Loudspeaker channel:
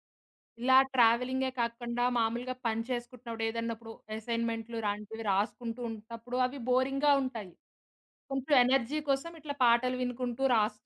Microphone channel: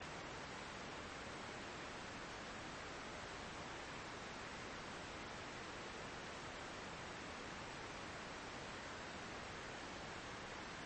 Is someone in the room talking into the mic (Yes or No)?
No